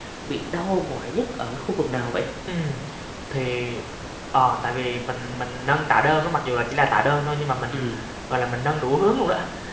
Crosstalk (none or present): none